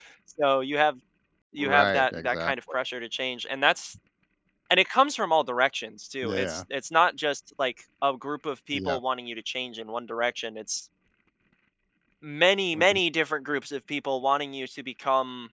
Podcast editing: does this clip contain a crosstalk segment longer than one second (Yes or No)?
Yes